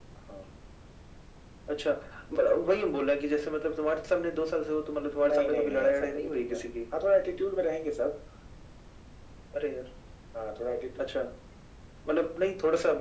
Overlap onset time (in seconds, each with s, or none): 5.2 s